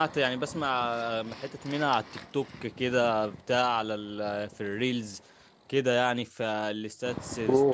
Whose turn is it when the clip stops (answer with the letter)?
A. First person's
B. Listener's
B